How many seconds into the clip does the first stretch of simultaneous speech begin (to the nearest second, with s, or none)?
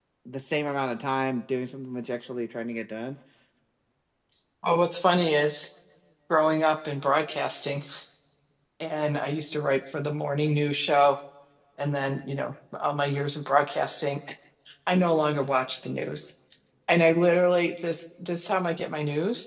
none